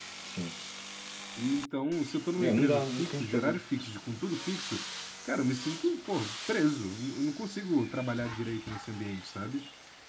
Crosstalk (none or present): present